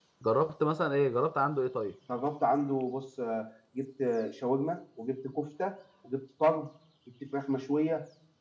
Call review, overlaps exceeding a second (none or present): none